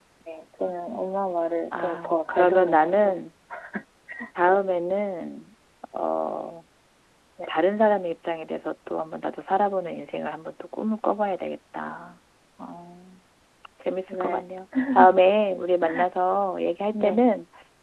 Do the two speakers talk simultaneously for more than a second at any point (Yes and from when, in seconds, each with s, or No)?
Yes, from 1.8 s